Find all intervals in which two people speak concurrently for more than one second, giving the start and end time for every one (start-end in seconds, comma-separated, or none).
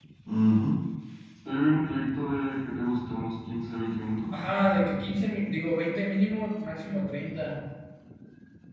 none